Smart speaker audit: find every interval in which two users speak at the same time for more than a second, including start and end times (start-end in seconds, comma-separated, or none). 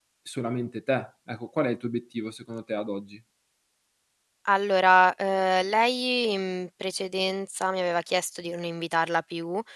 none